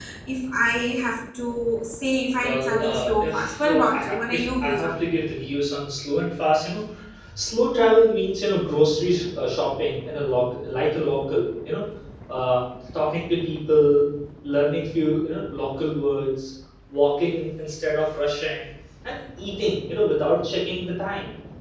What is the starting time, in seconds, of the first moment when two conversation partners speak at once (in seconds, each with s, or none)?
2.4 s